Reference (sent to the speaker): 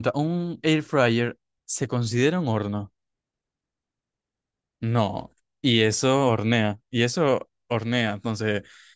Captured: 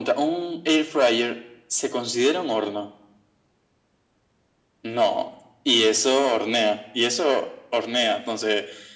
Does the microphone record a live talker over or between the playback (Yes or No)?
No